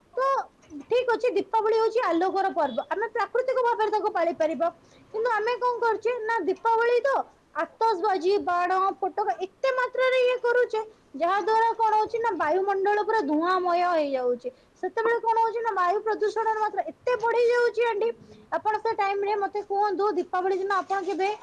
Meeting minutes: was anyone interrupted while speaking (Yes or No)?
No